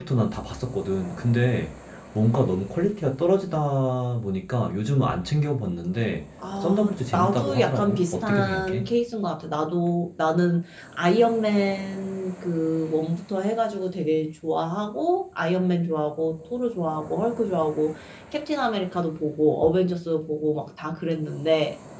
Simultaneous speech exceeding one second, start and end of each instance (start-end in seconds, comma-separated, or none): 6.6-8.9